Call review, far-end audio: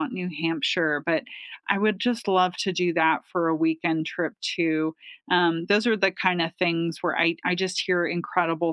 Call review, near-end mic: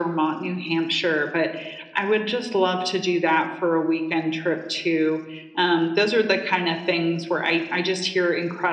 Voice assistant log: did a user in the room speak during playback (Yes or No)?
No